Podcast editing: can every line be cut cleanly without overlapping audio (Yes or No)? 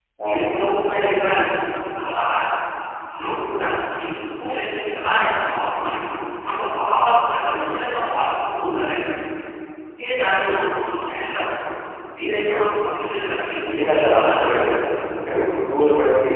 No